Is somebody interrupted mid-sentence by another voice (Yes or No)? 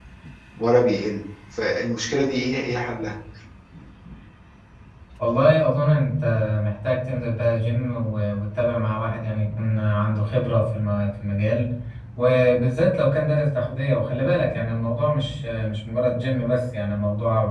No